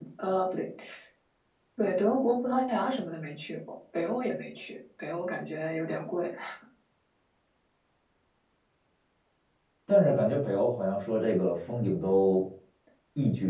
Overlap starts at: none

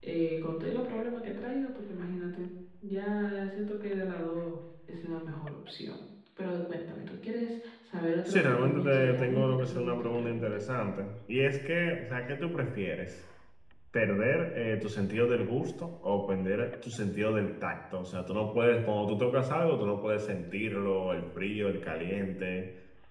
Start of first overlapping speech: 8.2 s

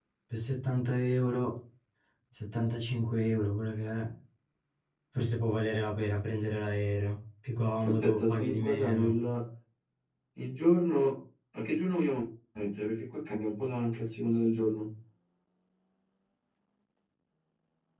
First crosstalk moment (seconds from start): 7.8 s

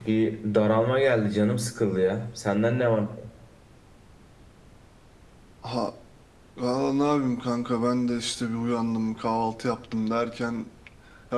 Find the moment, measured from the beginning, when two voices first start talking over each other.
none

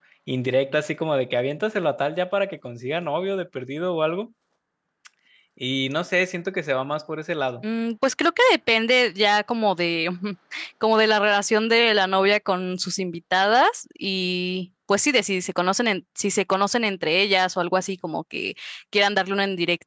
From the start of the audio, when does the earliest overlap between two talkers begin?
none

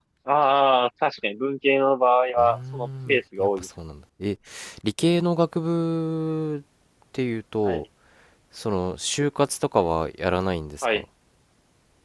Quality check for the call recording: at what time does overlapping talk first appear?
2.4 s

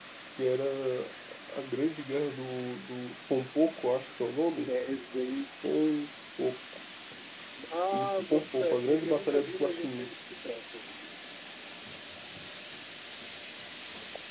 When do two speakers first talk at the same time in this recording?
7.9 s

